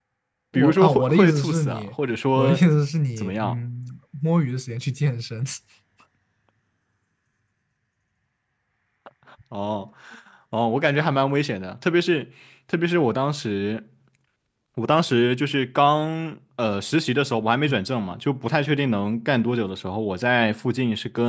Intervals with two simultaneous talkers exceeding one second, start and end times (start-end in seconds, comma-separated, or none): 0.5-1.9